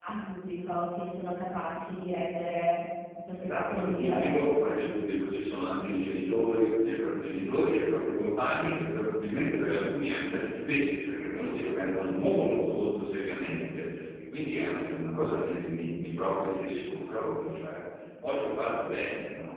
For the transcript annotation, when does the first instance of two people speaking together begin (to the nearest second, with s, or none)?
3 s